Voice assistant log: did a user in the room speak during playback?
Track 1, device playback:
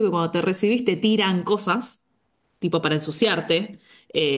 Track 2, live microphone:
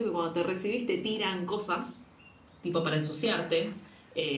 No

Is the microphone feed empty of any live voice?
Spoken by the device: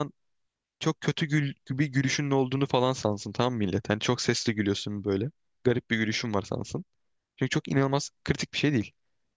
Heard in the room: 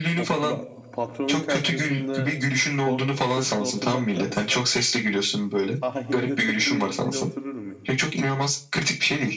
No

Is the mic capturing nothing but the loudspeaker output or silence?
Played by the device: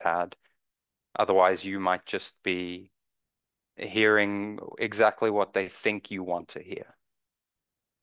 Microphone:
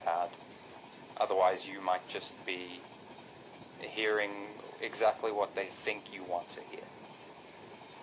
Yes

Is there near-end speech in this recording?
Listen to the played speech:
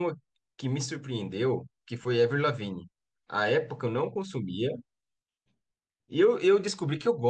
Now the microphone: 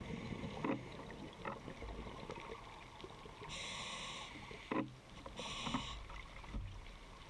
No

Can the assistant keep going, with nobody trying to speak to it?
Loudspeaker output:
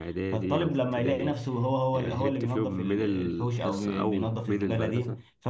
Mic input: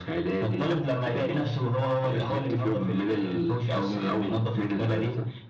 Yes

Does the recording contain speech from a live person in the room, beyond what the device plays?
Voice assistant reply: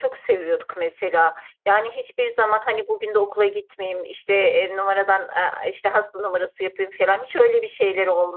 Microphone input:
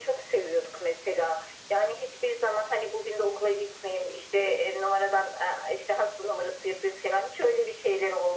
No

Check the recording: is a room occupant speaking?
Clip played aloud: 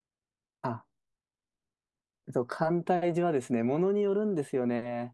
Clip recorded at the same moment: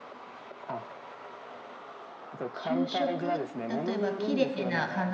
Yes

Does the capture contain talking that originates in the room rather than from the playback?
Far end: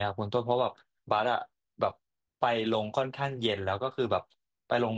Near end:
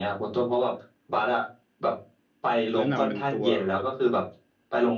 Yes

